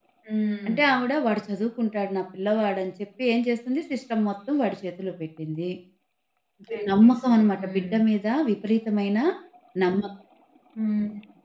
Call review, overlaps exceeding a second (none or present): present